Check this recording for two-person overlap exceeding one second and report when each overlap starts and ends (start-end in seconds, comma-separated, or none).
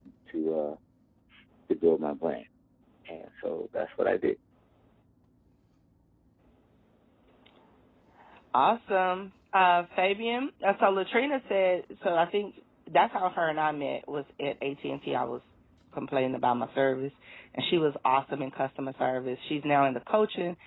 none